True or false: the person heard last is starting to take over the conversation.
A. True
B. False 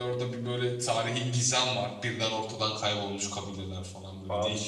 A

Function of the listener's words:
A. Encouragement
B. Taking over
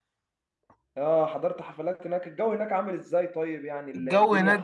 B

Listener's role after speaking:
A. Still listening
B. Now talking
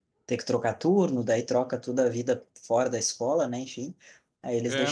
A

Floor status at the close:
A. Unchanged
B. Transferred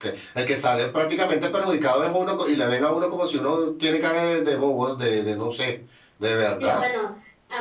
B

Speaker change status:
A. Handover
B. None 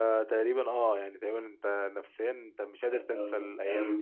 A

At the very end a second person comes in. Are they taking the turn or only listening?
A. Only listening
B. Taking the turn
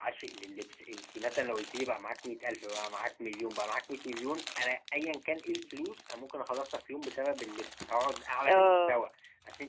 A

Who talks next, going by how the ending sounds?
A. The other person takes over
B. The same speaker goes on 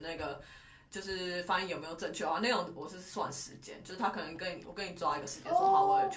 B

